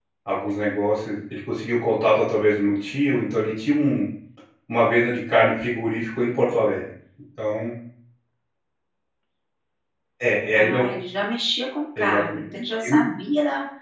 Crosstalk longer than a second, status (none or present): none